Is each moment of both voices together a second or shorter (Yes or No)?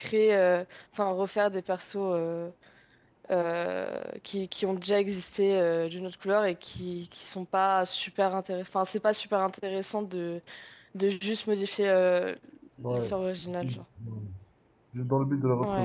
Yes